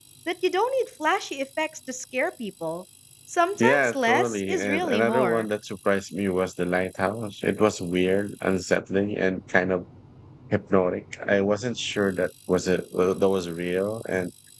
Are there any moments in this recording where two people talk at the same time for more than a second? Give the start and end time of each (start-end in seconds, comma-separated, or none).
3.6-5.5